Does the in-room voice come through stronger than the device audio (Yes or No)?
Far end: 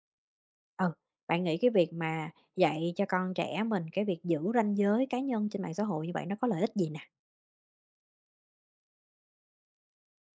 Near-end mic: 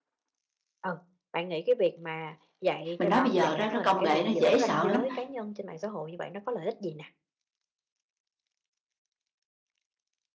Yes